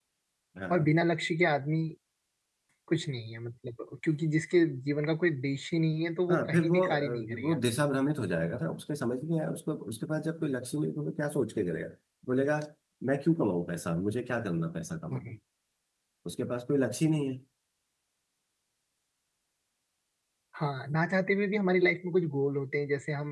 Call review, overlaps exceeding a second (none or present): present